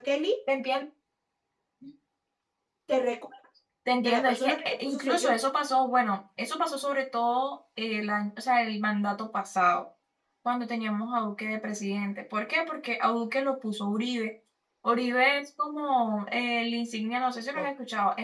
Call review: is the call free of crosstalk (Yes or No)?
No